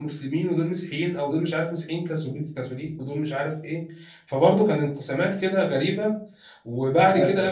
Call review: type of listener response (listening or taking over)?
listening